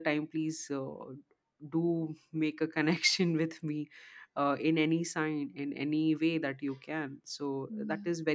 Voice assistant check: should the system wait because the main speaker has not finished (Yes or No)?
Yes